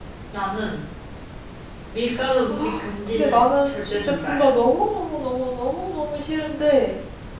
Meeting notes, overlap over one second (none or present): present